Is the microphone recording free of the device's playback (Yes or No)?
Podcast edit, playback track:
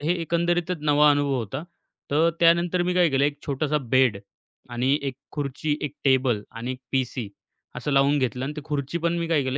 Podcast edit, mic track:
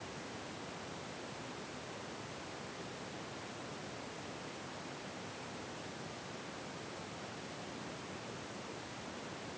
Yes